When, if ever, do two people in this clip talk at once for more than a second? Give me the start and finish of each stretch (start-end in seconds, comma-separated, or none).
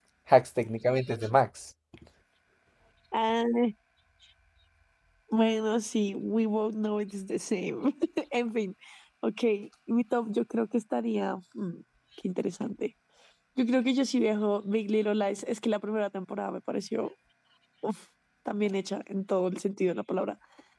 none